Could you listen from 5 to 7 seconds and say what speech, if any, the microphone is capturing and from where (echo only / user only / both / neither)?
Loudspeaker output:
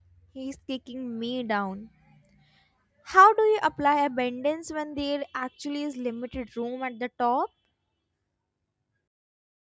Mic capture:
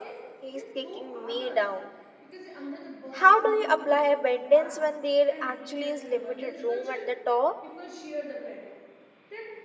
both